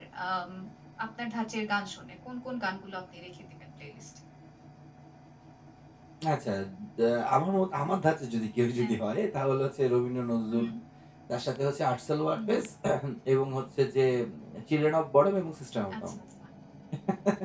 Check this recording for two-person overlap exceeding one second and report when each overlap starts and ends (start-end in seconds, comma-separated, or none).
none